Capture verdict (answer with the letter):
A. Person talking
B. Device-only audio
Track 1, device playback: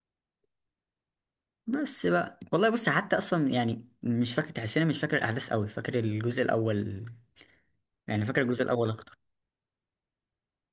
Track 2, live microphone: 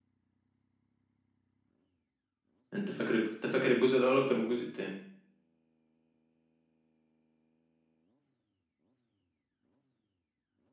A